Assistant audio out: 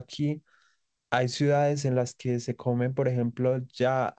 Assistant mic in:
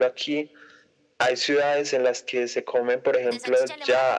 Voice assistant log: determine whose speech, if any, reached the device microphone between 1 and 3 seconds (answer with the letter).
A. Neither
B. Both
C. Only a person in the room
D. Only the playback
D